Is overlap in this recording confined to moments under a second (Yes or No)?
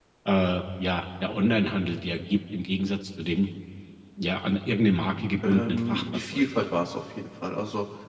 No